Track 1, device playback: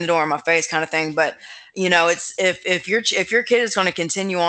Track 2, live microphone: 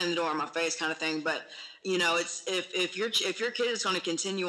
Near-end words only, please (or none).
none